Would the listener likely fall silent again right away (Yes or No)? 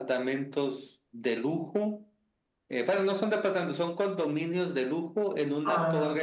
Yes